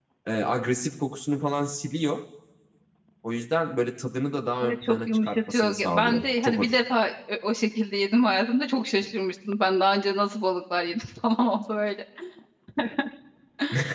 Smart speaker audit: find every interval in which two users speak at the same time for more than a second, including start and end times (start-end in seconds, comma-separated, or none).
4.6-6.8